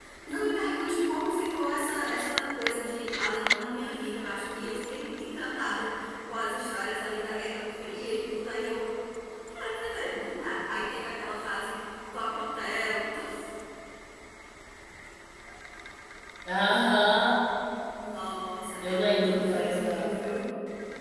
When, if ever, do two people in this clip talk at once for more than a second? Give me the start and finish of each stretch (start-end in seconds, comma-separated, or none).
18.8-20.1